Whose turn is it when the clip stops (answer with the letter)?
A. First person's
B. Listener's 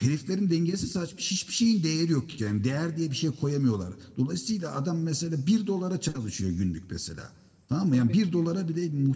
A